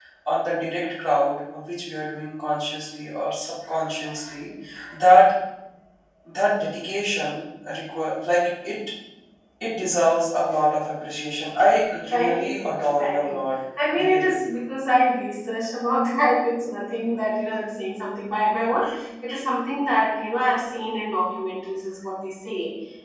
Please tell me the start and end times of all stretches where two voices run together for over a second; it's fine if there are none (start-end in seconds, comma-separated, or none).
12.1-13.5